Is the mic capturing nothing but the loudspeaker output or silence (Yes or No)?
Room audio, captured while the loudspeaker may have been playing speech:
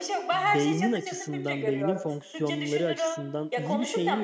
No